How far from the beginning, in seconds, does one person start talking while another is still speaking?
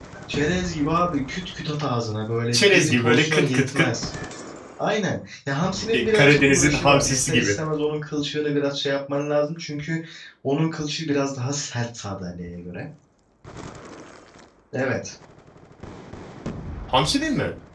2.5 s

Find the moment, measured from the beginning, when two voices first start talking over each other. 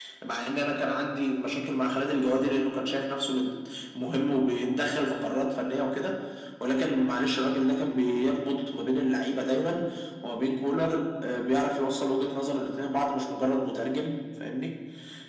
none

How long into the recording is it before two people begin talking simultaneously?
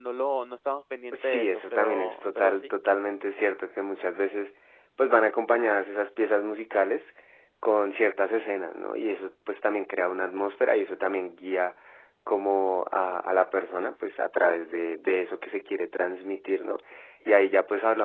1.1 s

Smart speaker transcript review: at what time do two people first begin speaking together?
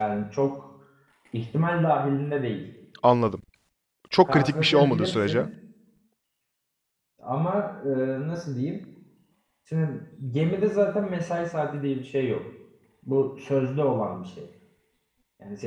4.2 s

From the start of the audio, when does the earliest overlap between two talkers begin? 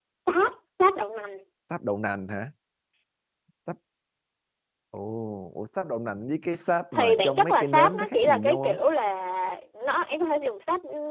6.9 s

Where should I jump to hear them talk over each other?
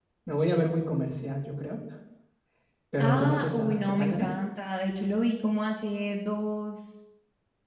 3.0 s

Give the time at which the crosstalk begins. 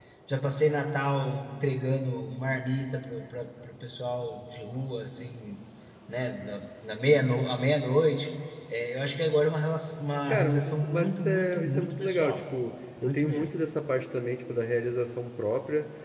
10.3 s

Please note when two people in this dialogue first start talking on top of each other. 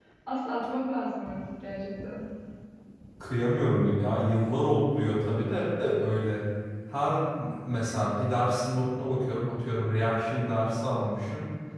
none

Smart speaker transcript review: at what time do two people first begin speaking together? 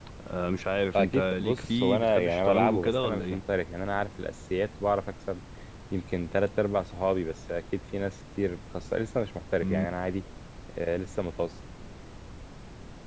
0.9 s

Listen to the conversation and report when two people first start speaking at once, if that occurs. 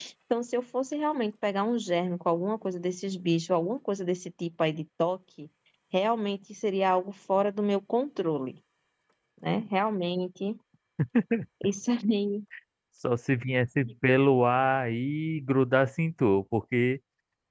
none

